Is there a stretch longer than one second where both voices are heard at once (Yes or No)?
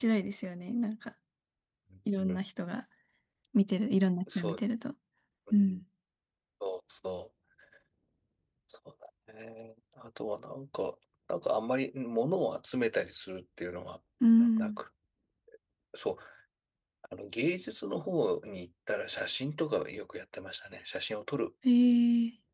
No